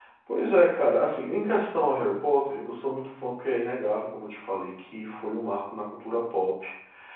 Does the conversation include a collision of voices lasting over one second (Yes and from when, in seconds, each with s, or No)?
No